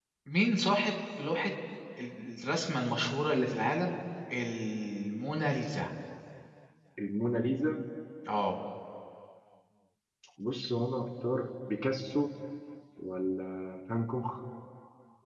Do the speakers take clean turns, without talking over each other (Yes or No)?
Yes